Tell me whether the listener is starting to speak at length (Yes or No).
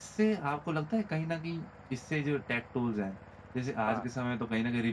No